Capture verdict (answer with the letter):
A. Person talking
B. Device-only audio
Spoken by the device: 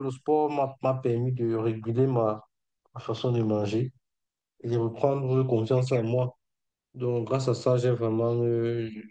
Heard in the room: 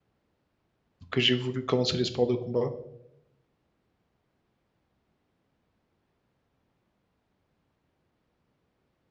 A